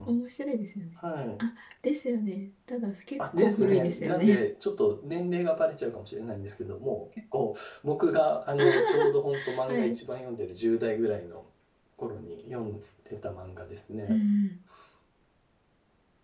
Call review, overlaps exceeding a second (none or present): present